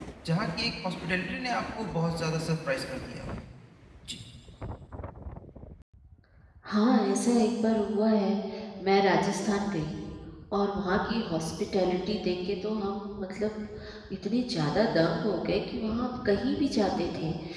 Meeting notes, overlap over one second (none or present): none